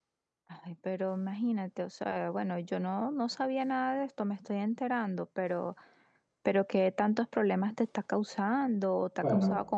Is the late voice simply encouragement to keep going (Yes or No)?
No